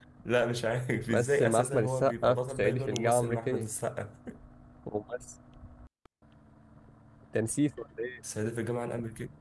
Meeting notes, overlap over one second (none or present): present